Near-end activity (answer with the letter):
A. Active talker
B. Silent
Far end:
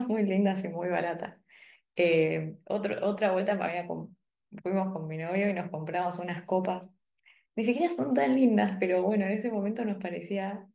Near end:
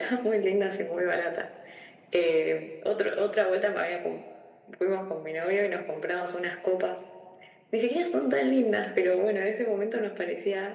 B